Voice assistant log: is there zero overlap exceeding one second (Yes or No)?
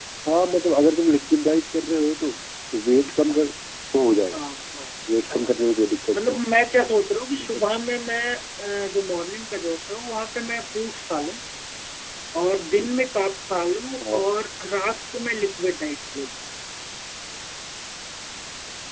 Yes